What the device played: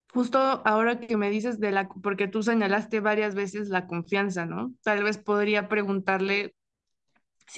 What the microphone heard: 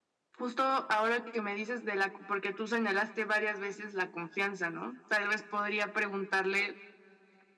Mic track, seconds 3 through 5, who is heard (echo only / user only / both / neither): echo only